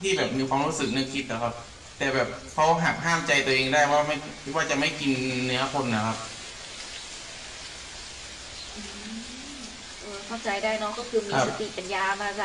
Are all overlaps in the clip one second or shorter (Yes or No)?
Yes